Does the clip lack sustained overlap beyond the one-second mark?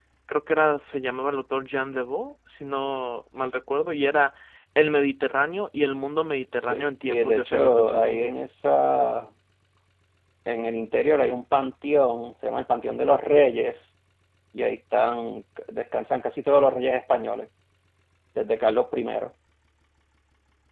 No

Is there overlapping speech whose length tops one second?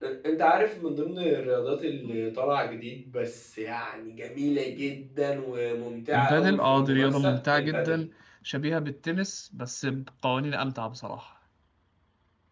Yes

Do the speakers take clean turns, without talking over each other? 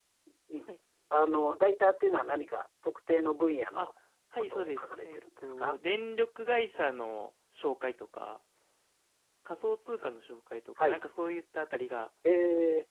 No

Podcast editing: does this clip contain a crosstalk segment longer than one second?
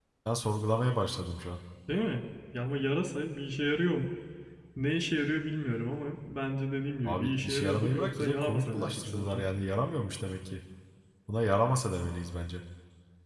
Yes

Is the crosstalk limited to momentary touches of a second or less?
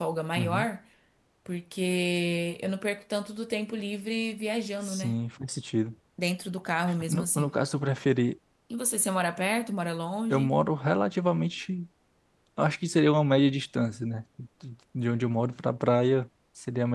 Yes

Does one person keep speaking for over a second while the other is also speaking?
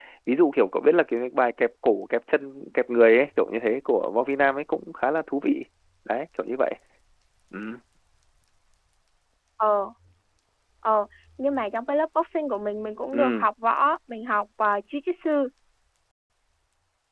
No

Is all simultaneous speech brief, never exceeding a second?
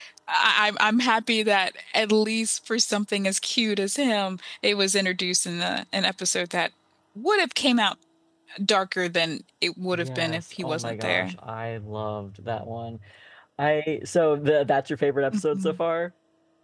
No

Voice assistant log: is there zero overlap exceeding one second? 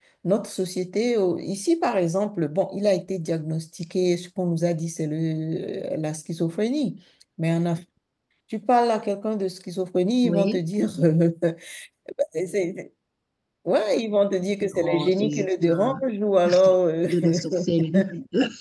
No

